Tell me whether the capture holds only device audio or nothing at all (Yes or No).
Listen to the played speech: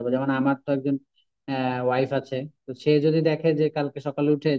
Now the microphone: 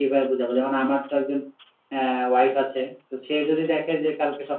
Yes